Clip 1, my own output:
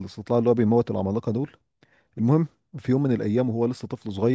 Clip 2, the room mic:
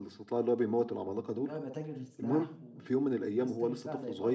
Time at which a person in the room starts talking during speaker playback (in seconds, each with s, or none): 1.4 s